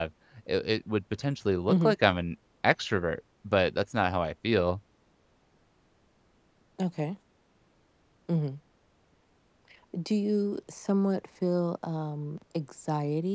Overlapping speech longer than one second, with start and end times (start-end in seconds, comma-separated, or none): none